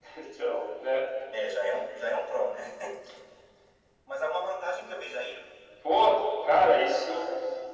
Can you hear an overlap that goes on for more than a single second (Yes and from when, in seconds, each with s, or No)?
No